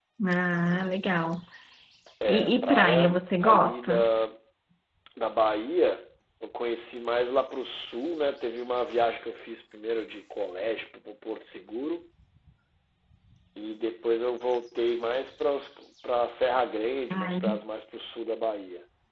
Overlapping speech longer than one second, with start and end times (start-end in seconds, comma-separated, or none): 2.2-4.1